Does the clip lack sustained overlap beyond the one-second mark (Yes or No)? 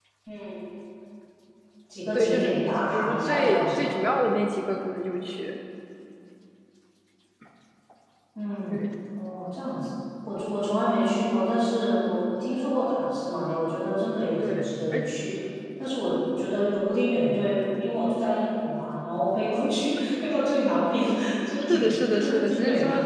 No